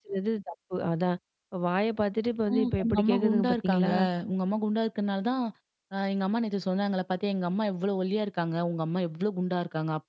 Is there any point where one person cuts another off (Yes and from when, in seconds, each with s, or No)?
Yes, from 2.5 s